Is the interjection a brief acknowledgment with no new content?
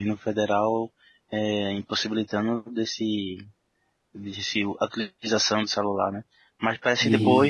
Yes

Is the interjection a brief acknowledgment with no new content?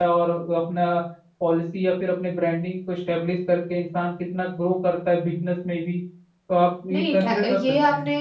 No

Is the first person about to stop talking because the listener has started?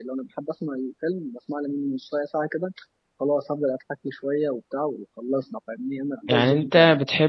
Yes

